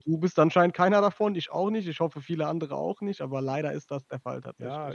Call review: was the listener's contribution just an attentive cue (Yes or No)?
No